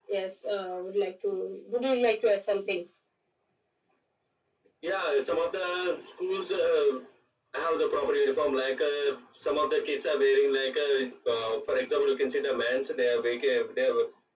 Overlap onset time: none

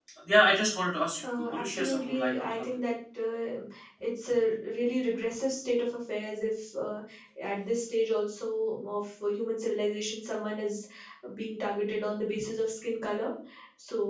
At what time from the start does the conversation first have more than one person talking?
1.2 s

